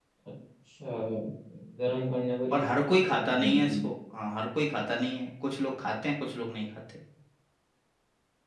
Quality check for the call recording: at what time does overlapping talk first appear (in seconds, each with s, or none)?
2.5 s